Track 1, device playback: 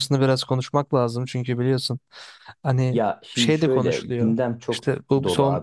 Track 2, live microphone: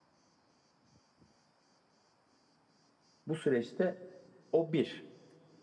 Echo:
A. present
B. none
B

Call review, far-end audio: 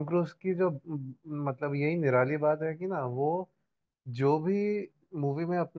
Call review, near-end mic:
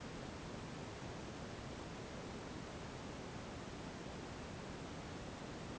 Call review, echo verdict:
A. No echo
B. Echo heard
A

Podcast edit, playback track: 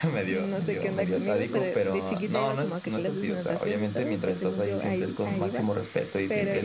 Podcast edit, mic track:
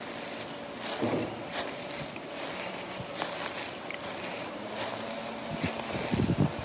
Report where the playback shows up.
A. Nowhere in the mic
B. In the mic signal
A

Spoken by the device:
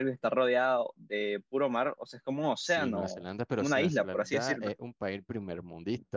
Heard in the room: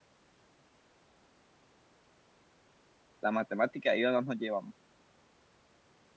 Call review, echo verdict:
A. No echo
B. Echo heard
A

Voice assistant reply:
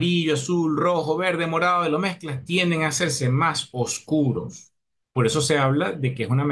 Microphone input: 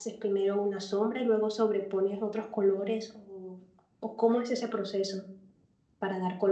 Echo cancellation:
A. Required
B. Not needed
B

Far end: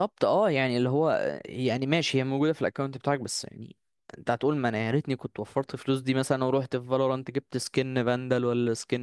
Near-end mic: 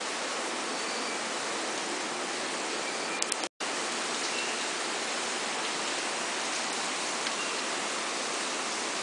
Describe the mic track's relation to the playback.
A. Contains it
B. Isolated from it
B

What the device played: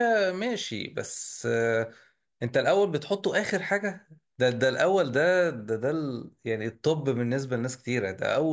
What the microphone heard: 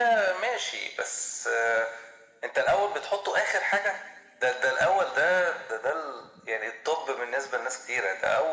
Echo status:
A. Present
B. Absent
A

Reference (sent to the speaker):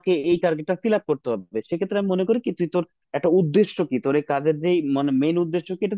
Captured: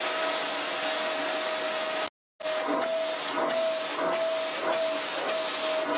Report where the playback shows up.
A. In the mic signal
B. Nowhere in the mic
B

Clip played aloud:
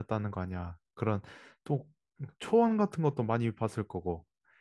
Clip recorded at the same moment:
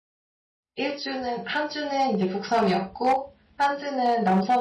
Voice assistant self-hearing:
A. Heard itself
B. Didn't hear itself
B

